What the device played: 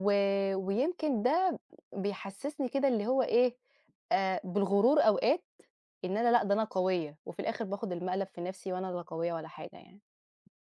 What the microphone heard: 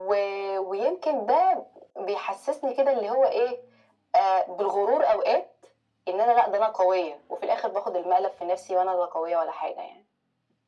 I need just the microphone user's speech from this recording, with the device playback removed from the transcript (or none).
none